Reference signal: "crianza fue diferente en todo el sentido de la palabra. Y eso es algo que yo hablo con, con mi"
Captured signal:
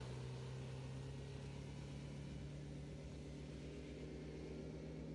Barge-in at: none

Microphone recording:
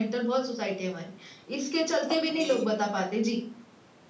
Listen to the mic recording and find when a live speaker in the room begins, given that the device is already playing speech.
2.1 s

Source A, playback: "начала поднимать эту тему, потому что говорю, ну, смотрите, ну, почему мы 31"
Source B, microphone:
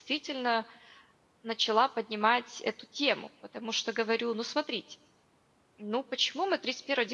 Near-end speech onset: none

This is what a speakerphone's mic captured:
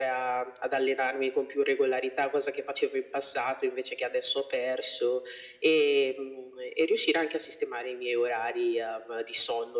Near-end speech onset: none

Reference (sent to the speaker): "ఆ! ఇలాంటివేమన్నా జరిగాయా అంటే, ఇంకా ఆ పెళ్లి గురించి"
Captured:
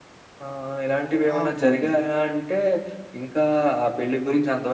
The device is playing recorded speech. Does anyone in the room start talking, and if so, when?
1.4 s

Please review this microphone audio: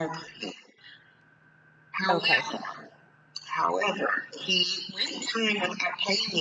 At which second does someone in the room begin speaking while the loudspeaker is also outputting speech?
2.1 s

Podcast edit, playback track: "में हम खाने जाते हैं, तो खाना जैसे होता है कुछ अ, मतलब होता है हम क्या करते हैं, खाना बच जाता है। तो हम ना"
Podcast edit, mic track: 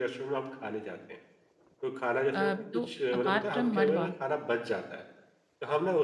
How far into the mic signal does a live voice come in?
2.3 s

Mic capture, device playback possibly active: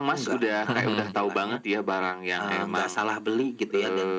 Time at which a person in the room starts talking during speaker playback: 0.7 s

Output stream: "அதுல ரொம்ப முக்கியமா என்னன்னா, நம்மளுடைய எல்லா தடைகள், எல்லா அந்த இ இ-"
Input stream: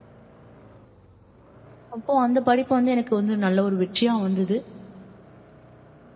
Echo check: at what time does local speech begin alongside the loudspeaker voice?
1.9 s

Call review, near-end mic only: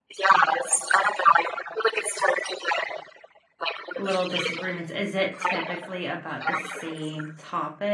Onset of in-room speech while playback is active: 3.9 s

